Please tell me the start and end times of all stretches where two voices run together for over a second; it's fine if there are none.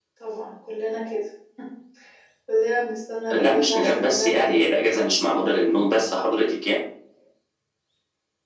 3.3-4.6

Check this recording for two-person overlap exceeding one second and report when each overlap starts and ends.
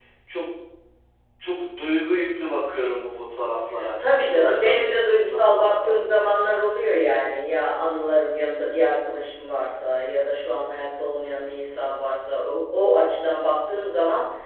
4.0-6.0

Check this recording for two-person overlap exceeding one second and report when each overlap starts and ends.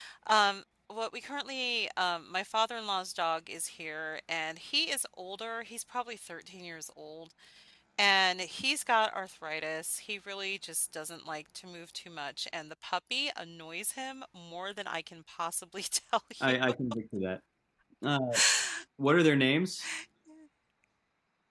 none

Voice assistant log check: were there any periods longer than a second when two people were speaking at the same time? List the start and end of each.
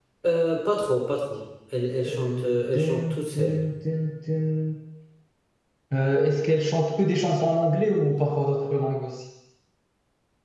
2.0-3.6

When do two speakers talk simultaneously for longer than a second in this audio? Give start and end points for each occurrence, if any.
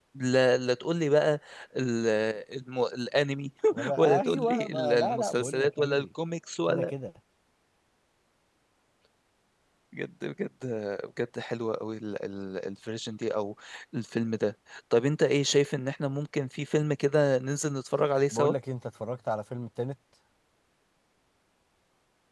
4.0-6.0

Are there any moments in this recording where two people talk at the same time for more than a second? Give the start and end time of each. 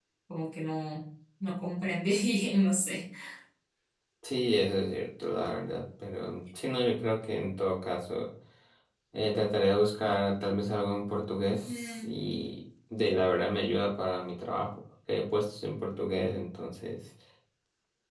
none

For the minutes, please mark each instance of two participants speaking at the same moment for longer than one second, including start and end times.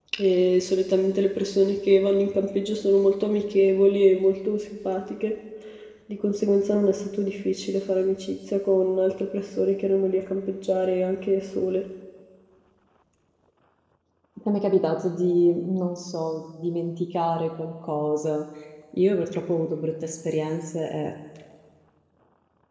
none

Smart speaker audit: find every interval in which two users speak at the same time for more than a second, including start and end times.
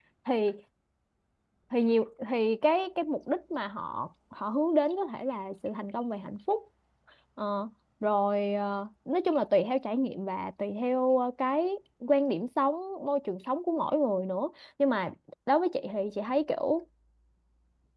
none

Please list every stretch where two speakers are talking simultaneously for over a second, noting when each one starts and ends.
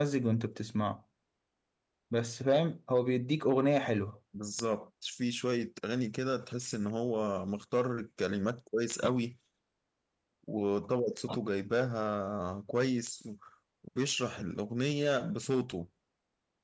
none

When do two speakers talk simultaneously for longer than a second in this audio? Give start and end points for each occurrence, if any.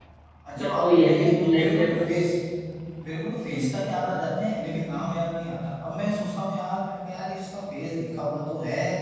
0.6-2.2

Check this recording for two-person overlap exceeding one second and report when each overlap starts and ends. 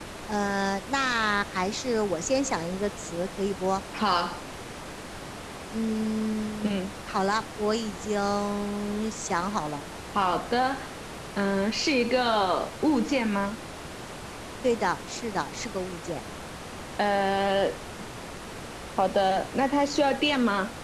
none

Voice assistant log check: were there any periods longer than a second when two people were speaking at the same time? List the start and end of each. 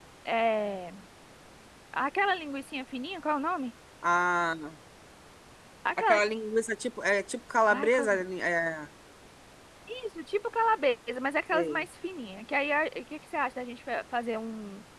none

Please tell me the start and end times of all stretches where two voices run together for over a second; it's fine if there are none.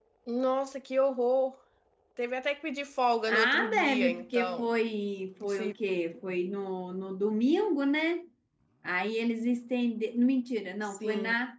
3.3-4.7

